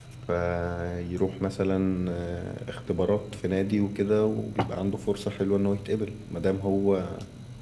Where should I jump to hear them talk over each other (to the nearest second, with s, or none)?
none